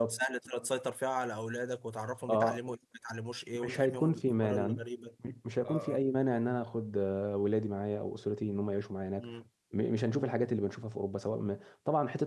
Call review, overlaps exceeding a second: present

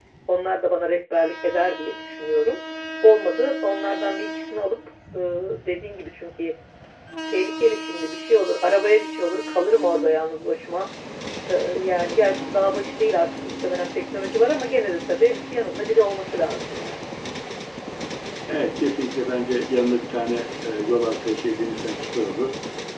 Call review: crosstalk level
none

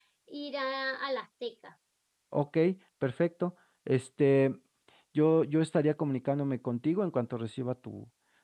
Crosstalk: none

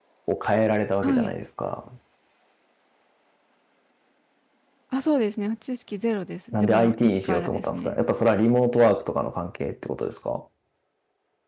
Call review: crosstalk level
present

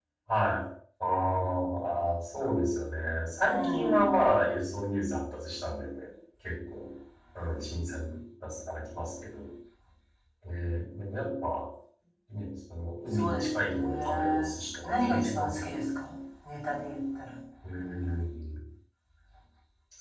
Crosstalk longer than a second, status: present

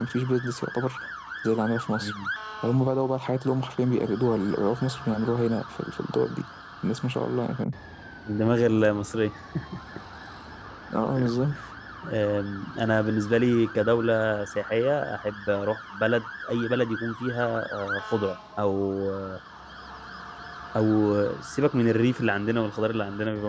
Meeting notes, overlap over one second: none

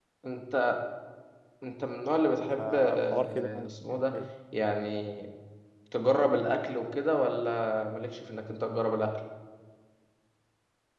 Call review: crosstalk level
present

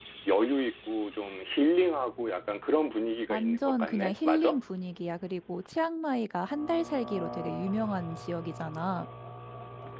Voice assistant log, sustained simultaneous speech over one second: present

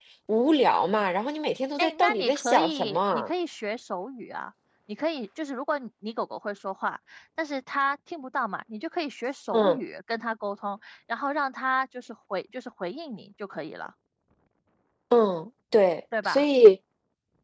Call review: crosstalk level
present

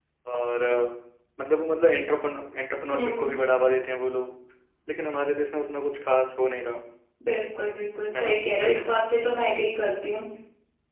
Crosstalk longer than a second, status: none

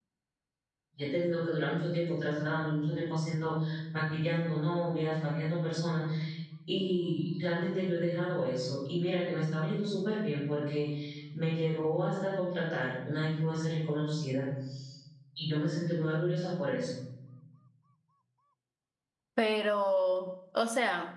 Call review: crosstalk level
none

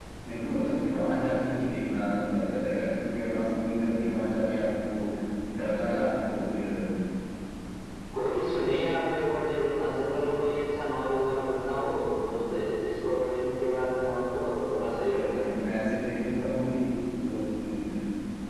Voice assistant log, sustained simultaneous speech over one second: none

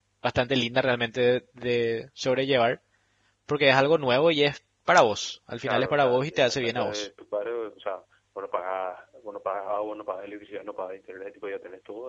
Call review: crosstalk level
present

